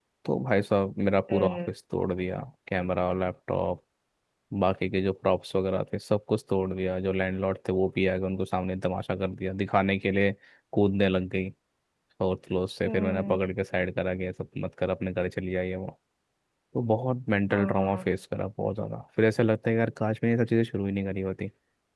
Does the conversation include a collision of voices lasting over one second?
No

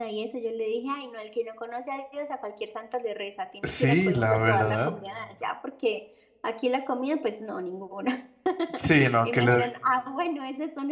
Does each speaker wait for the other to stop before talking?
No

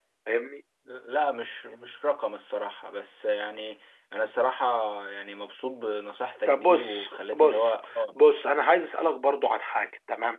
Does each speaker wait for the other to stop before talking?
No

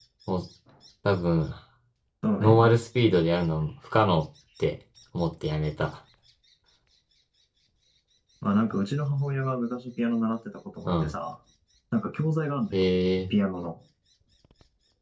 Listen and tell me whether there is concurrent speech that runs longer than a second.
No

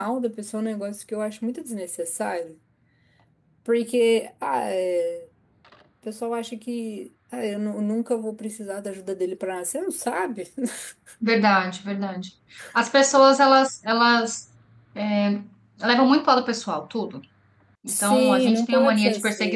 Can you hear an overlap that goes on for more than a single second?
Yes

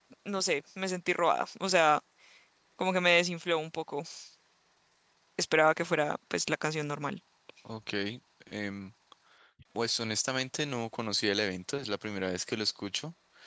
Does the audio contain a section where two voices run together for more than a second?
No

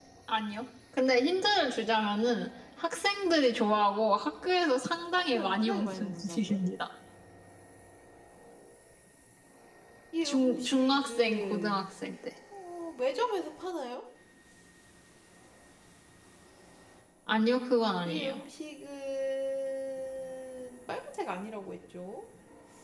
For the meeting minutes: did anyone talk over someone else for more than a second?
Yes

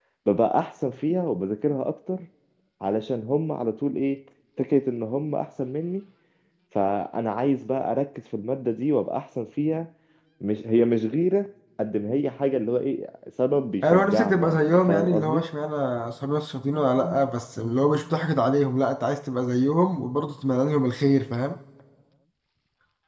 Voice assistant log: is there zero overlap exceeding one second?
No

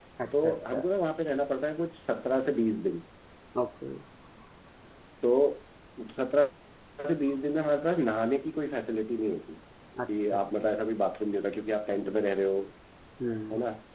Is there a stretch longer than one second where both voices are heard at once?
No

